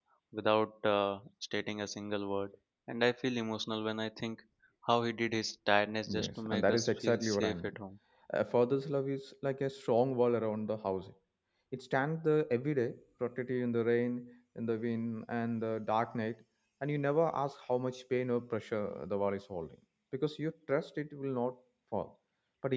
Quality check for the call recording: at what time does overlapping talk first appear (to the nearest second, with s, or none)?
6 s